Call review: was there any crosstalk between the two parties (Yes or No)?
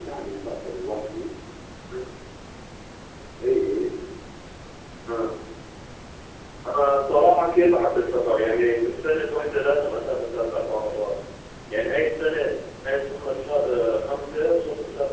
No